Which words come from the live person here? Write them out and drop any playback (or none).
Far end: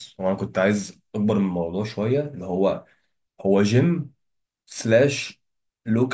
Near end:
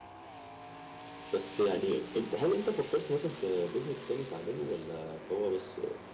بس يعني انت هل انت فكرت مثلا في بيزنس تاني تعمله ولا هو بس